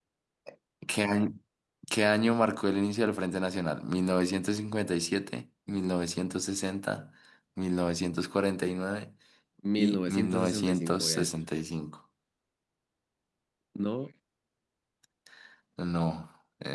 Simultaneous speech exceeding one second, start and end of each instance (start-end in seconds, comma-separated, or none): 9.8-11.4